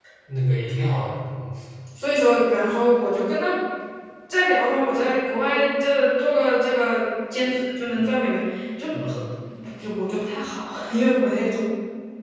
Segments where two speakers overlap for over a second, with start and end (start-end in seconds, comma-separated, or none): none